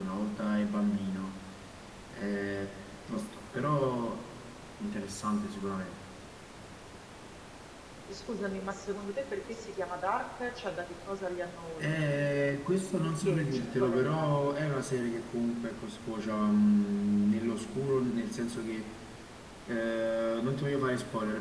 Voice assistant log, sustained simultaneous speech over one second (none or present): present